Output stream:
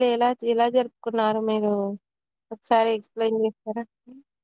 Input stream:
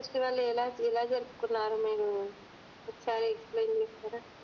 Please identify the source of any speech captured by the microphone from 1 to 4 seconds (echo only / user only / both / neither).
echo only